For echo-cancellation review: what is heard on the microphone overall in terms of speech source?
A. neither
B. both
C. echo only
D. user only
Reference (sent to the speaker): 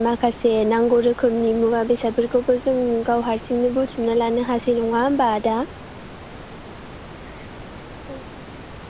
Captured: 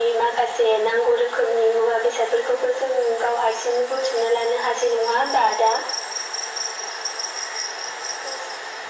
C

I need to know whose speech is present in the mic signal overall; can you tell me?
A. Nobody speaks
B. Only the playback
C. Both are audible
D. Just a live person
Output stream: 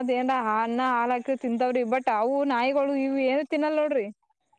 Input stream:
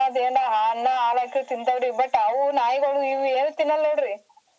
B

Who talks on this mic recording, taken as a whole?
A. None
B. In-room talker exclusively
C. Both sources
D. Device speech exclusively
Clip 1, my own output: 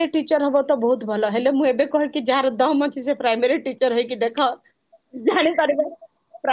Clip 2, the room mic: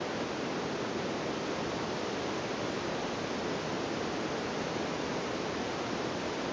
A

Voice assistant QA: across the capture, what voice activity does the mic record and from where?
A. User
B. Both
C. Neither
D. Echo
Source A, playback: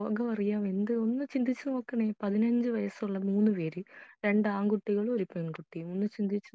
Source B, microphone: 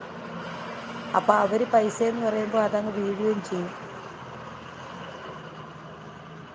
A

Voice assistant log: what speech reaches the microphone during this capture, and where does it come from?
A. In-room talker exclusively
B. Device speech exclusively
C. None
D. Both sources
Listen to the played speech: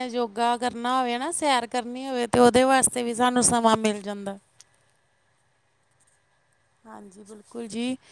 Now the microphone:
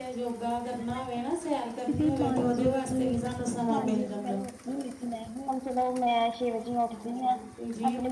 D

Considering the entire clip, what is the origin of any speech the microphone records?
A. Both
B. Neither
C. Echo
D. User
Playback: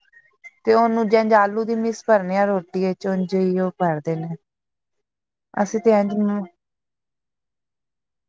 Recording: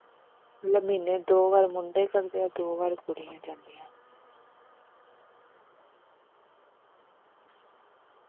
D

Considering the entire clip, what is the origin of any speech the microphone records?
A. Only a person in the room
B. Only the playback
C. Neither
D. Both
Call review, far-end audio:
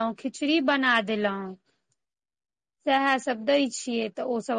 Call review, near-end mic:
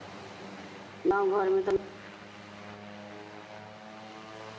A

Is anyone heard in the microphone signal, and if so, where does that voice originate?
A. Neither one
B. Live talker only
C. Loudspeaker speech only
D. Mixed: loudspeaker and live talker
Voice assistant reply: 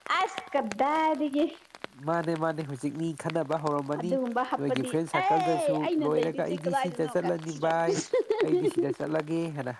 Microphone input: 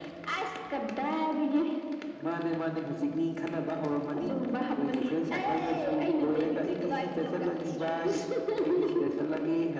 C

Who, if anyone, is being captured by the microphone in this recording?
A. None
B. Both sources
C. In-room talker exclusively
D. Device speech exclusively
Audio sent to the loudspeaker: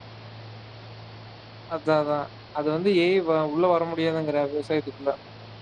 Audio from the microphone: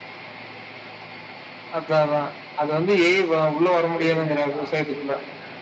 B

